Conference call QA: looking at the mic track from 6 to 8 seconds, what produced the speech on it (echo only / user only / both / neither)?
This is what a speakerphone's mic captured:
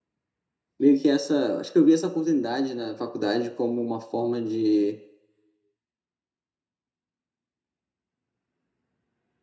neither